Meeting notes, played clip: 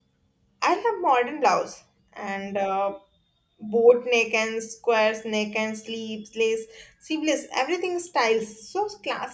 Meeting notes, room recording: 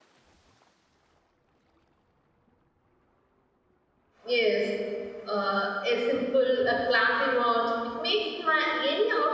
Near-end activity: present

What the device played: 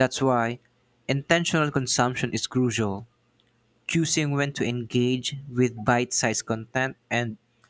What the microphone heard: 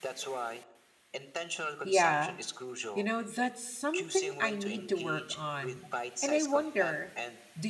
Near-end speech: present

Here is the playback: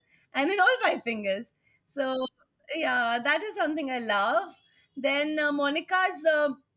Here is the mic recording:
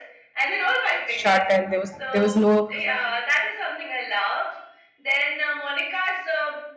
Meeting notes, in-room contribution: present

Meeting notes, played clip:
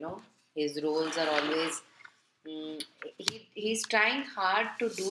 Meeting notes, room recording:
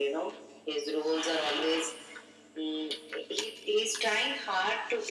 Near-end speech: none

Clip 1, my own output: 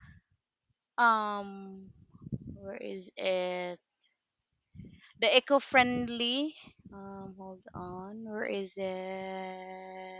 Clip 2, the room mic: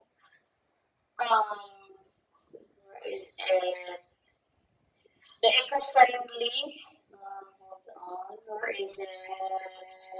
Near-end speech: none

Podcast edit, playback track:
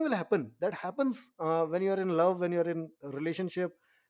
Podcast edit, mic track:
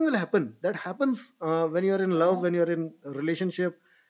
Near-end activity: present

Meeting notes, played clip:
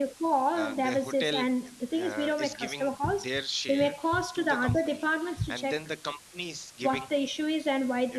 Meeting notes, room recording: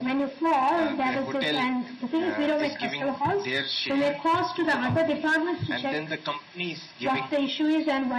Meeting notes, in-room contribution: none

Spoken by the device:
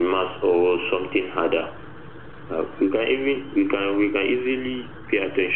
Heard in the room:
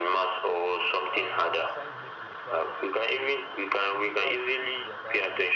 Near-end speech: present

